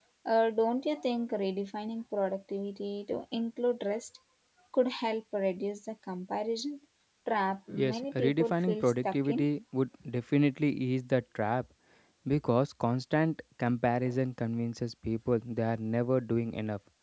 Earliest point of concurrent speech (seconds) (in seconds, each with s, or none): 7.7 s